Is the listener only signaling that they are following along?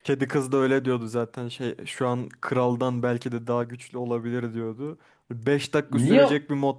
Yes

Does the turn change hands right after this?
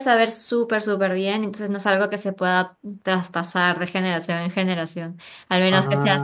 No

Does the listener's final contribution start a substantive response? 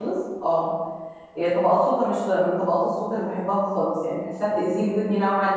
No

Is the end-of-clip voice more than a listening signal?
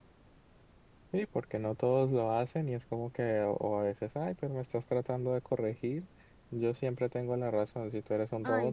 No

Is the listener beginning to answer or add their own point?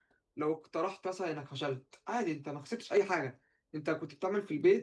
No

